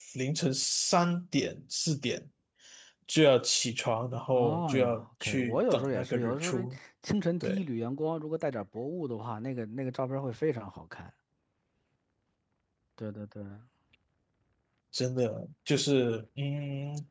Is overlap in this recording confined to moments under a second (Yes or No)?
No